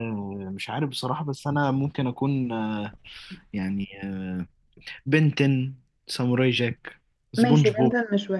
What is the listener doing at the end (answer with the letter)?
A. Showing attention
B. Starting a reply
B